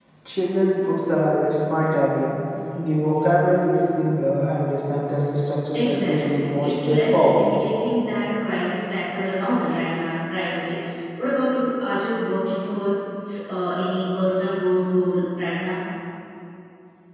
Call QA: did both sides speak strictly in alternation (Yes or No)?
No